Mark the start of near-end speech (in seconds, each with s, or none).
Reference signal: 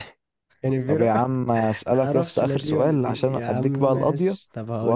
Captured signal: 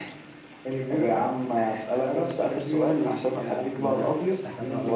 3.7 s